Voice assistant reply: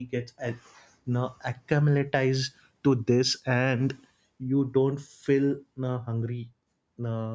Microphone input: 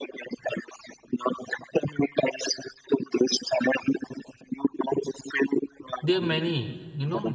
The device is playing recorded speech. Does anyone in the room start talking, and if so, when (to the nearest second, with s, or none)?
6 s